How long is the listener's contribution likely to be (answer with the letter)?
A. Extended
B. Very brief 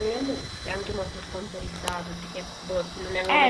A